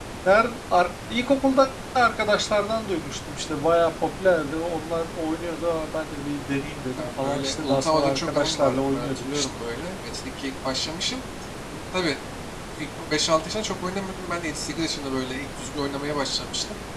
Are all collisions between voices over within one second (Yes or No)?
No